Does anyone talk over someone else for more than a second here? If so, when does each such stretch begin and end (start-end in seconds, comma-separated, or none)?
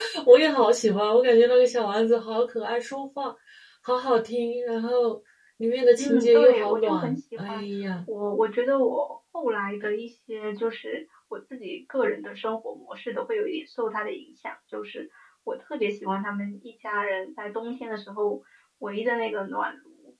6.0-7.6